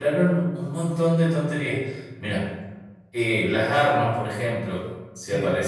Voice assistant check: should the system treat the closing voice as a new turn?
No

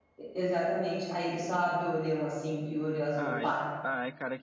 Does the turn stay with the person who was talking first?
No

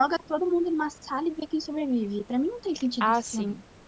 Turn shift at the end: Yes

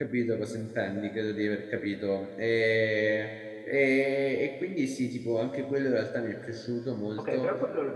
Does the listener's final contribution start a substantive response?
Yes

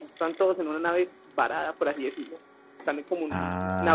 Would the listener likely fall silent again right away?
Yes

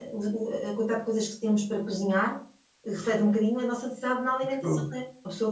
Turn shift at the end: No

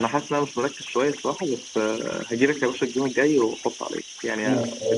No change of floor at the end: No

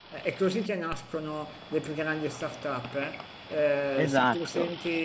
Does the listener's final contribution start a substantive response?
No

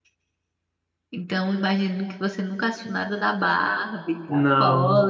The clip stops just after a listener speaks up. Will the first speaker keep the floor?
Yes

